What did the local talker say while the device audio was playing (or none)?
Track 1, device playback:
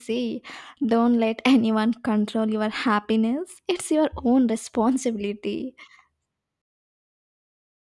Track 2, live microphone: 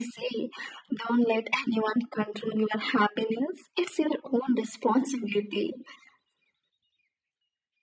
none